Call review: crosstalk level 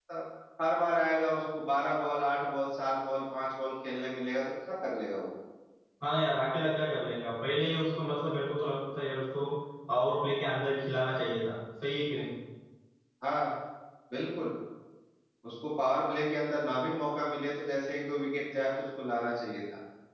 none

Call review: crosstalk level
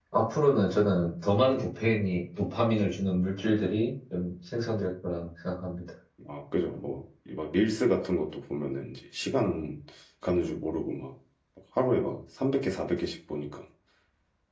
none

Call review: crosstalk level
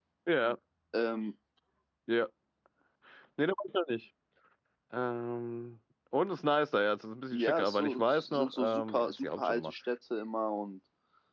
present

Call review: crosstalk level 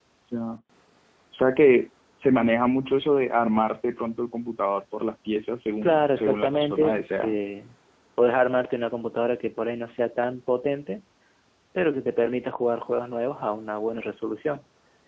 present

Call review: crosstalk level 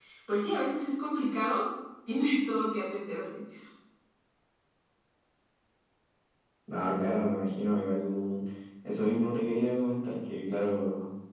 none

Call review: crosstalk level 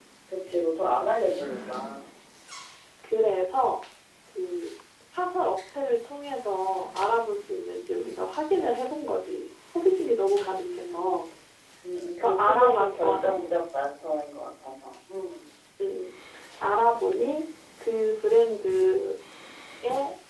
present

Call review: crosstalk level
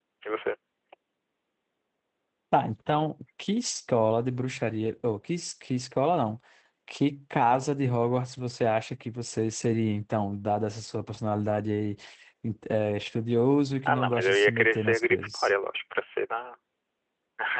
present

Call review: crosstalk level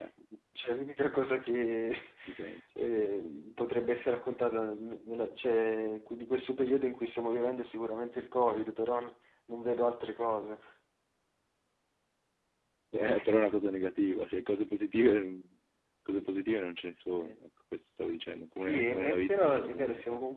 present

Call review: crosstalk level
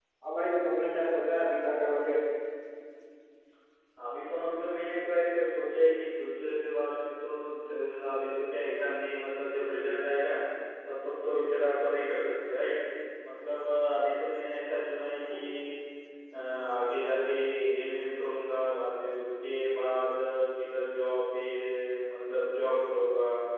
none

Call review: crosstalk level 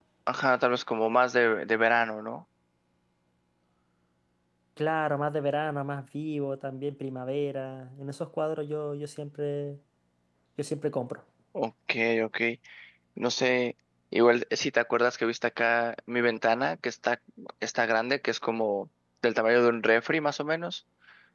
none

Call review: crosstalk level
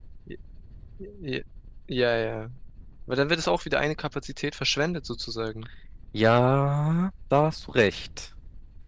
none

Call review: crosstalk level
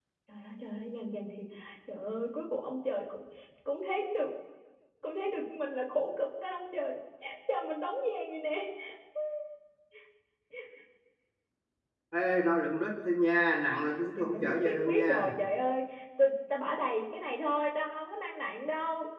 present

